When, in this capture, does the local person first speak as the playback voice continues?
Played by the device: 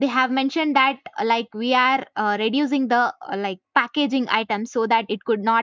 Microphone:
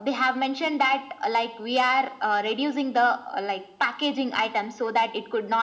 none

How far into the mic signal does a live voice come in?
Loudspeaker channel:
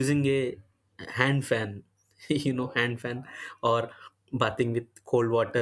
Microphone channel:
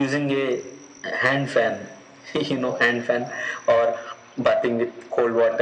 none

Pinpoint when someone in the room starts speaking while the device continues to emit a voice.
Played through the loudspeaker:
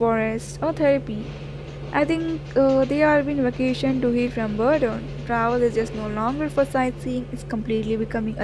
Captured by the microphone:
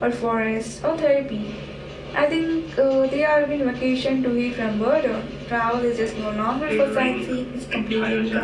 6.6 s

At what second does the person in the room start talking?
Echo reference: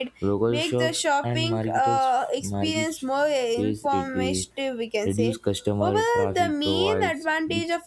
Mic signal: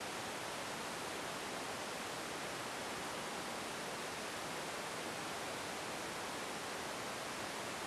none

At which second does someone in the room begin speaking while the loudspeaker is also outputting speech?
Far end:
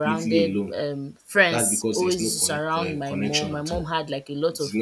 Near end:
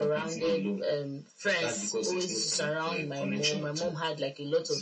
none

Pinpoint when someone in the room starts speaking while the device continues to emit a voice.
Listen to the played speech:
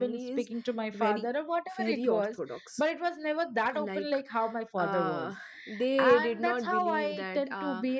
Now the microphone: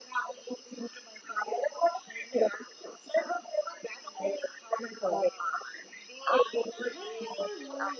6.8 s

